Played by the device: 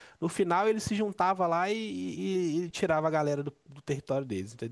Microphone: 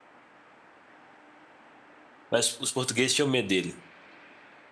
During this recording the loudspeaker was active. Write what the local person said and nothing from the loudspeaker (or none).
Mas os portugueses tinham medo dele.